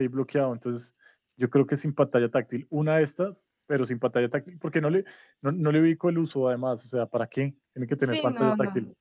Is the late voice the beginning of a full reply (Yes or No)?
Yes